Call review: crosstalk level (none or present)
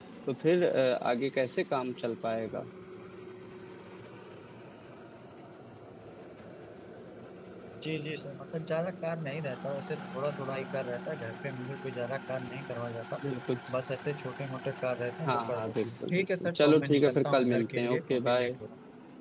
present